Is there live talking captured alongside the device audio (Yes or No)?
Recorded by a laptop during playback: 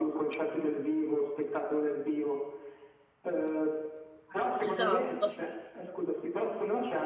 Yes